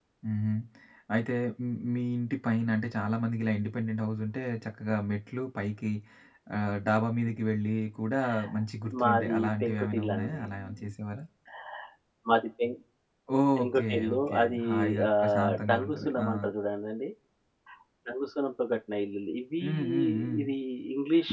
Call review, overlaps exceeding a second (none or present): present